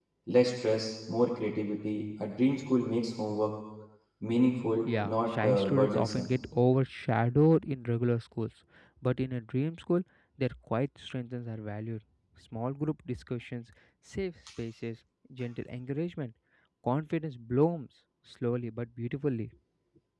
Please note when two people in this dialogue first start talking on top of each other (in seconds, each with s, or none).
4.9 s